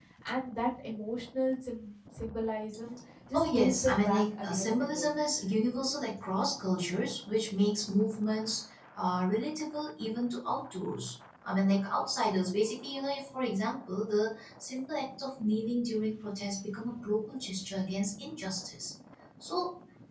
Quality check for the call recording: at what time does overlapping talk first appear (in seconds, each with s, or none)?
3.3 s